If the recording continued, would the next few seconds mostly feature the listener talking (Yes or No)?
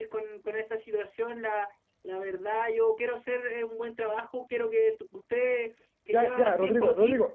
Yes